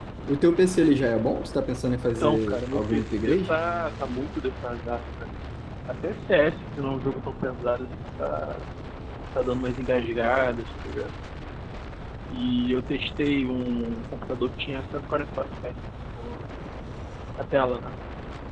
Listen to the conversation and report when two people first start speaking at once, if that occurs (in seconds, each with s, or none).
2.2 s